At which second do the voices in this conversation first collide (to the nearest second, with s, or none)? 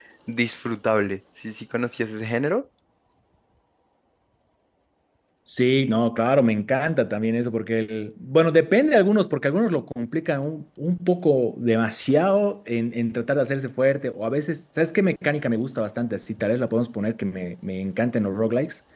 none